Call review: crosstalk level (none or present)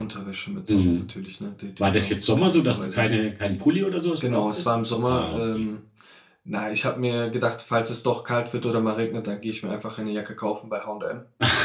present